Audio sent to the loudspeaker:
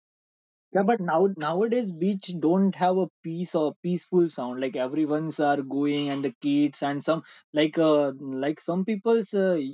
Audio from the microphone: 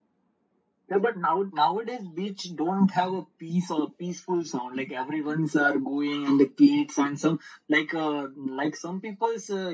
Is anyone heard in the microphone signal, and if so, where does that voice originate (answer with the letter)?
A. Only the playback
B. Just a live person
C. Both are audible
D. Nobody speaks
A